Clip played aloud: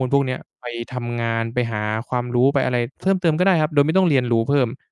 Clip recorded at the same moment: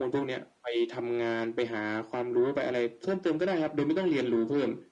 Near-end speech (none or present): none